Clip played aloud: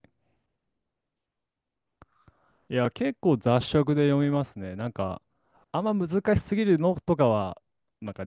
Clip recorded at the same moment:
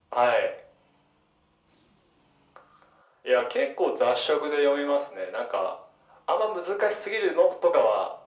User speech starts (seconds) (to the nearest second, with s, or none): none